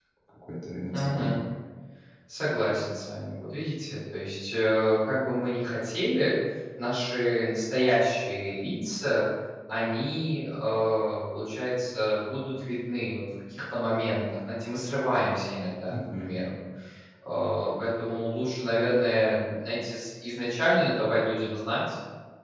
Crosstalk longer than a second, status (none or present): none